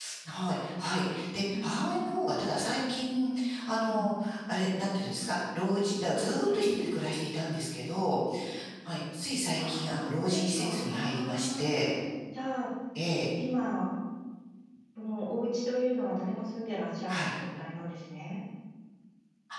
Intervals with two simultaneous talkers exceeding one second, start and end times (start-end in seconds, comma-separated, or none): 10.1-11.6